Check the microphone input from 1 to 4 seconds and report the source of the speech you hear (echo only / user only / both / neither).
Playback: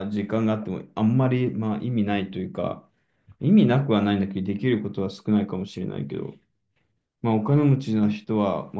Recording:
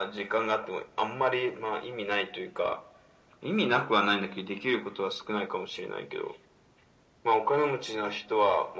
echo only